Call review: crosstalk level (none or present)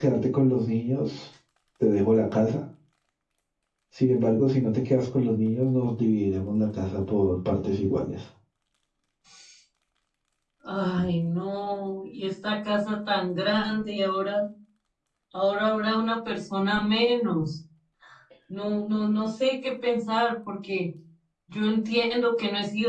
none